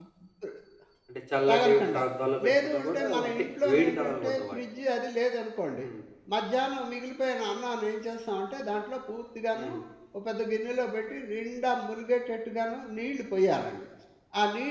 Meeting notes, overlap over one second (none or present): present